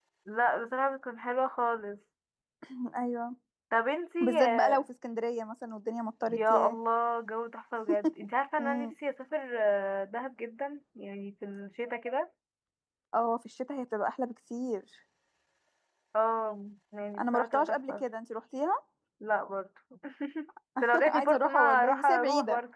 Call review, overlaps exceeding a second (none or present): present